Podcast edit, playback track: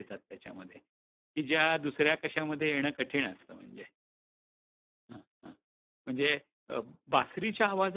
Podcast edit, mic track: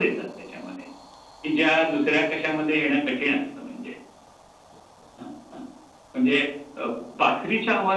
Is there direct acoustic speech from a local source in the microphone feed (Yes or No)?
No